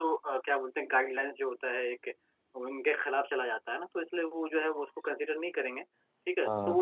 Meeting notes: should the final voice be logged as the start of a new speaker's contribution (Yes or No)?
No